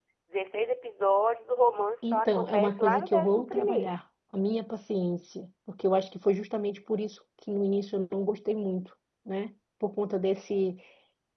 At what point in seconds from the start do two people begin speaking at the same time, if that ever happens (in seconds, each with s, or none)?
2.0 s